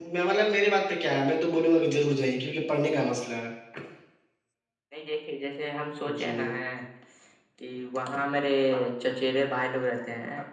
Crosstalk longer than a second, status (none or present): none